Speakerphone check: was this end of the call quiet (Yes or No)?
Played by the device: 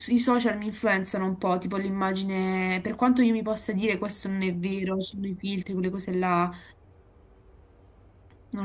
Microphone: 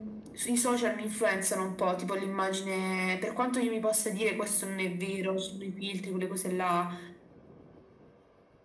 Yes